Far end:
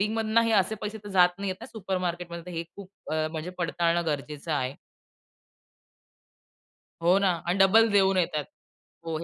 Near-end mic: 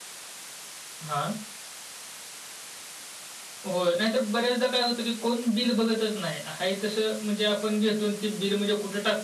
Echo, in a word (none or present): none